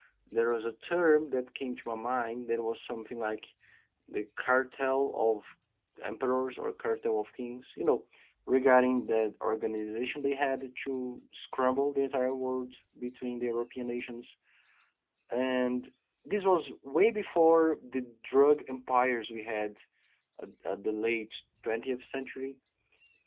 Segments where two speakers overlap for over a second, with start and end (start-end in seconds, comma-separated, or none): none